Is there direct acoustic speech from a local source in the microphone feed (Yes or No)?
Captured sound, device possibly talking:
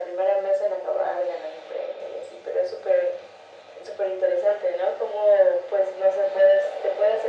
No